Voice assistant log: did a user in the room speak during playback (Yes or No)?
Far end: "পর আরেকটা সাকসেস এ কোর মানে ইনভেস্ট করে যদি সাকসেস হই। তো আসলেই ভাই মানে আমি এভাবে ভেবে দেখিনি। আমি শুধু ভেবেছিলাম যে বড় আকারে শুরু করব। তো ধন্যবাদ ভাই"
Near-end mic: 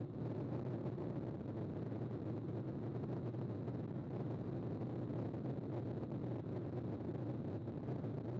No